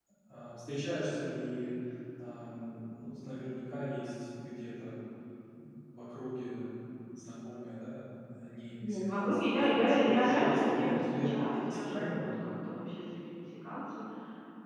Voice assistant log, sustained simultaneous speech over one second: present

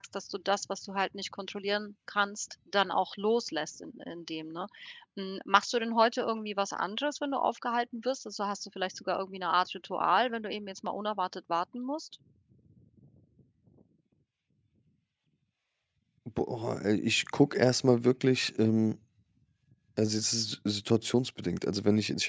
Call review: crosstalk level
none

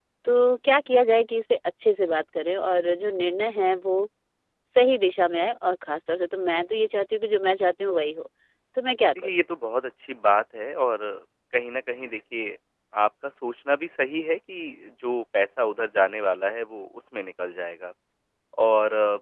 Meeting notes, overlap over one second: none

